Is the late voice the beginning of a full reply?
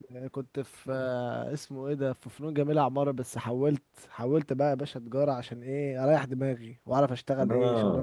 Yes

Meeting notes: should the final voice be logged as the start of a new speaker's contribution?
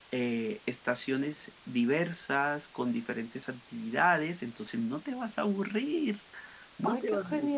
Yes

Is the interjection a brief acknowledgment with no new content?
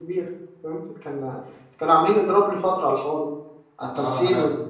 No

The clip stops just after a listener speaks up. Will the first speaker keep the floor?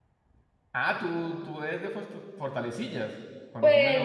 No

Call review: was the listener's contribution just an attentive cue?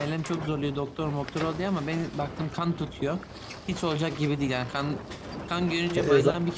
Yes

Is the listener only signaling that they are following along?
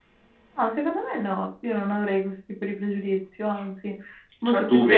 No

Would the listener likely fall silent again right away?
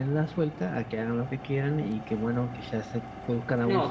No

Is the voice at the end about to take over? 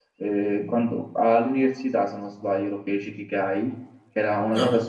No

